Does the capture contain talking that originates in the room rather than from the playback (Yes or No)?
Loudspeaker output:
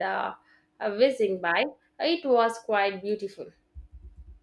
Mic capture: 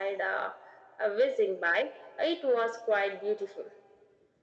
No